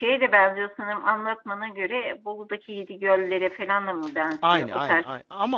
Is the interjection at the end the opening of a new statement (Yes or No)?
Yes